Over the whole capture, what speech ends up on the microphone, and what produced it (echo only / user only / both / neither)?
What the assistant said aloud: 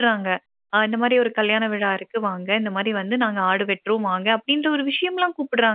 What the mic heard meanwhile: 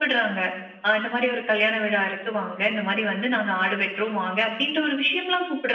echo only